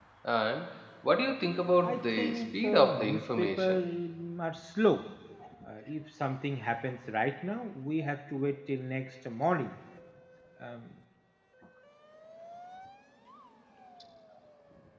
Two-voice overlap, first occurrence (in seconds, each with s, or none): 1.8 s